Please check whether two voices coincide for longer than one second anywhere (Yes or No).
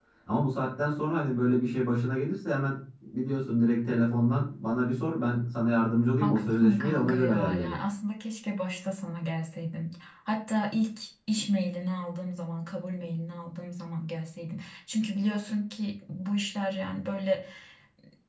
Yes